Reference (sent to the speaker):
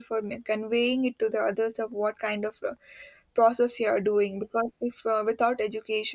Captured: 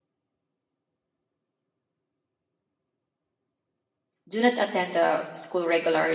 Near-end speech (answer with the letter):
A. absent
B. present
B